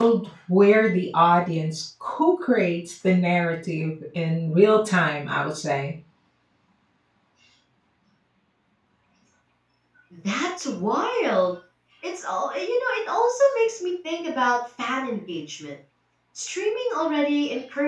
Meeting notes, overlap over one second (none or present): none